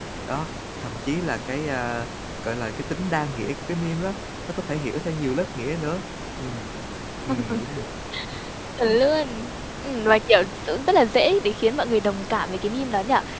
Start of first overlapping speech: none

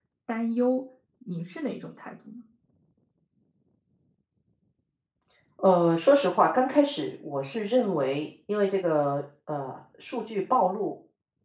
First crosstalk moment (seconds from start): none

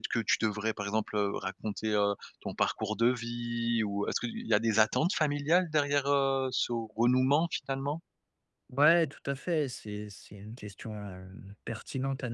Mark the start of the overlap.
none

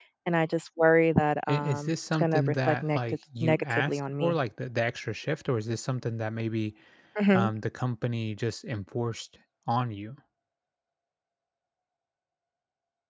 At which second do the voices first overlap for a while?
1.5 s

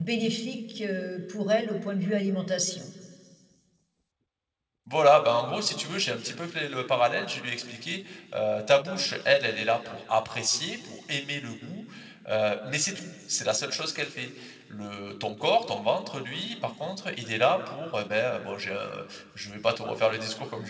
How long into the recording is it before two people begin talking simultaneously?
none

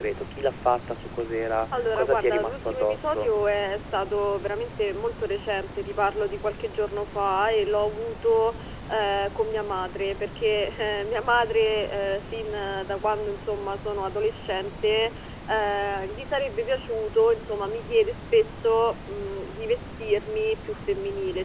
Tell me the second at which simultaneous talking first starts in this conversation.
1.7 s

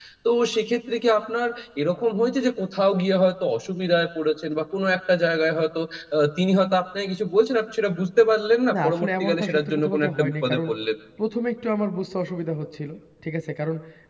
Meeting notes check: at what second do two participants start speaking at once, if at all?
8.7 s

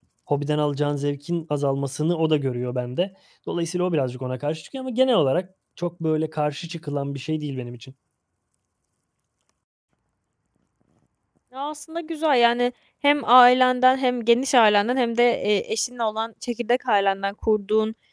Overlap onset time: none

